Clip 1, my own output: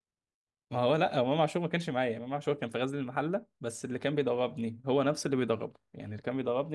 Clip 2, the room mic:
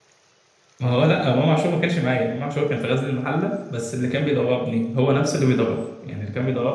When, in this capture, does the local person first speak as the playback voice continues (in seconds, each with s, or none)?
none